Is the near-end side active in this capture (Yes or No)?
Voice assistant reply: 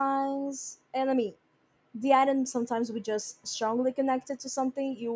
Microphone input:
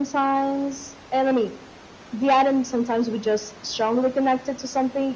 No